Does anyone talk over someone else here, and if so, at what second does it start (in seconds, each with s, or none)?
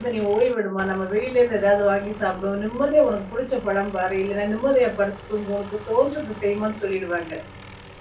none